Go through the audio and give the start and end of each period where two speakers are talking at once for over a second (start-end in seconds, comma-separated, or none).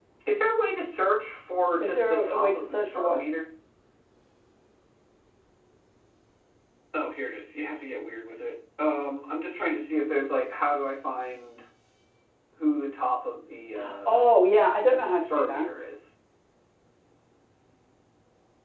1.8-3.2